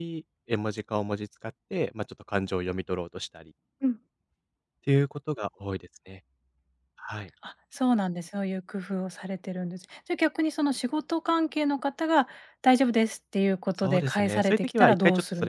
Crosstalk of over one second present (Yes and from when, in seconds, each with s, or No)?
Yes, from 13.8 s